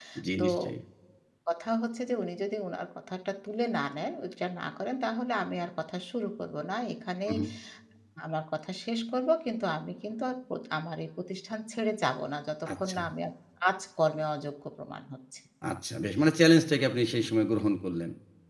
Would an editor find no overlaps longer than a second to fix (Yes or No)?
Yes